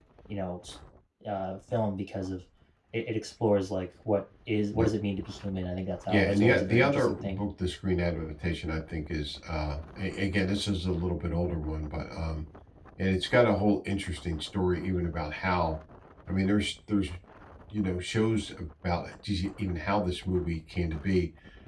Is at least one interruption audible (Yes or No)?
Yes